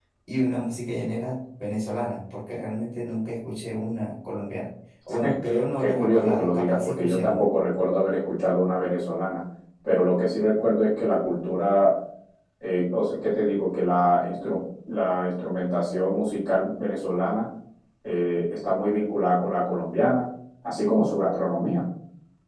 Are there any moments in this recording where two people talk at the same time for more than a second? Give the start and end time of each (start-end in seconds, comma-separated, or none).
5.8-7.4